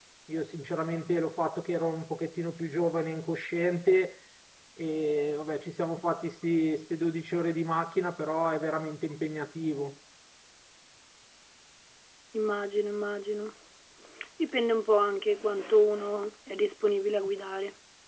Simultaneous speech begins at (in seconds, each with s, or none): none